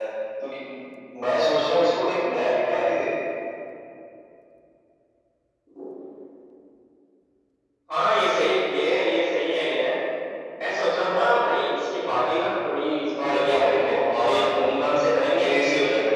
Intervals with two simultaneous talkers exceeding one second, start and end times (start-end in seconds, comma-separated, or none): 13.3-14.8